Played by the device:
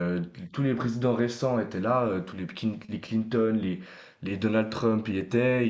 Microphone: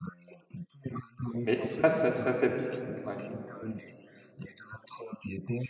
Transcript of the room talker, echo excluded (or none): Mais ça, ça, ça s'applique. Ouais.